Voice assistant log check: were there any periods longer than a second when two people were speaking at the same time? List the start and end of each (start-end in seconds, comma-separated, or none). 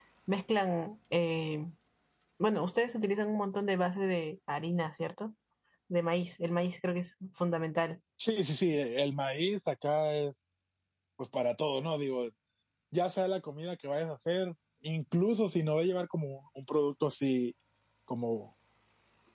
none